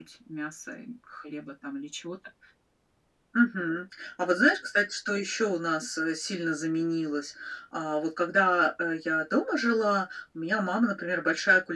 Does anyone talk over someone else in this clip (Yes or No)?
No